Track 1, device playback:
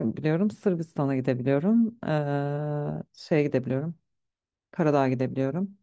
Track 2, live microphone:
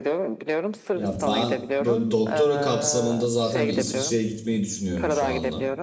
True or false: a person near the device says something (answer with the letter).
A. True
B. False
A